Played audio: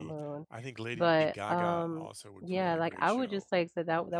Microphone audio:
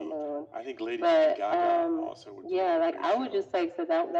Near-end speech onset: none

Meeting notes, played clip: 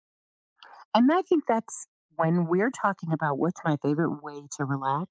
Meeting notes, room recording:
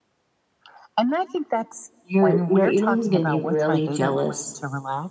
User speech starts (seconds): 2.0 s

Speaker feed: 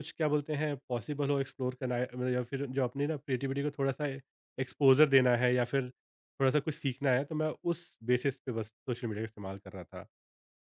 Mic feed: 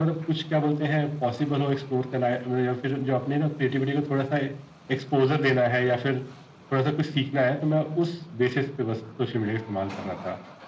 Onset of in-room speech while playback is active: none

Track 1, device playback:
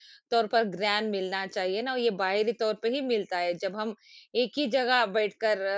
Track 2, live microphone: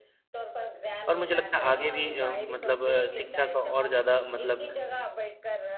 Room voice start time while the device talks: 1.1 s

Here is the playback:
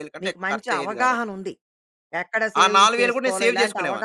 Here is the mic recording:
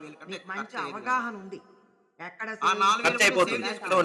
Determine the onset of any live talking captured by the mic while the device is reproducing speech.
3.0 s

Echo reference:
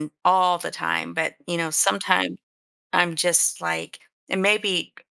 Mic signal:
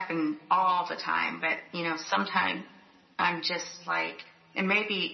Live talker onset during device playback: none

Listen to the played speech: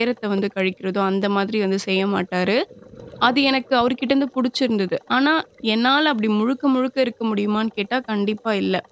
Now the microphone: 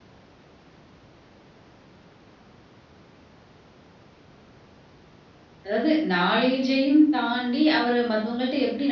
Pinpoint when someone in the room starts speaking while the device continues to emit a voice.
5.7 s

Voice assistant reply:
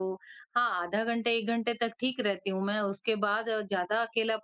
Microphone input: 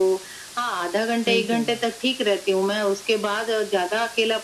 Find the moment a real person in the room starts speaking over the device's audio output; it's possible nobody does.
1.2 s

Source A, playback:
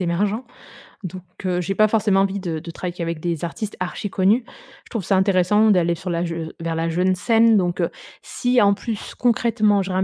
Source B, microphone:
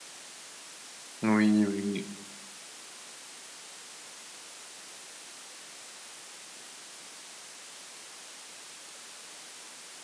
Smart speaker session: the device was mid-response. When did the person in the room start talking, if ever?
1.2 s

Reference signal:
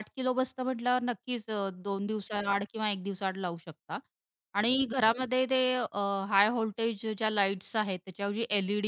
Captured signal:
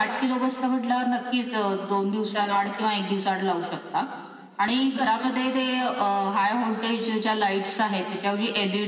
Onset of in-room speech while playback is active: none

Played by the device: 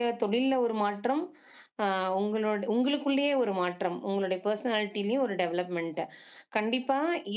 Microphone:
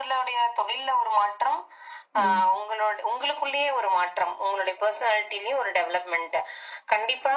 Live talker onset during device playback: 2.1 s

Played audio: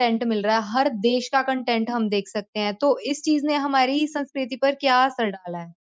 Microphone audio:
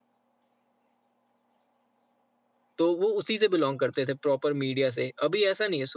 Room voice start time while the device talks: 2.8 s

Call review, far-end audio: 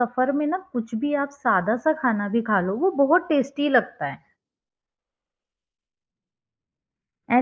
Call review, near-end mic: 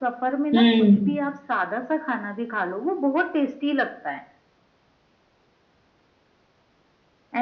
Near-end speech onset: 0.5 s

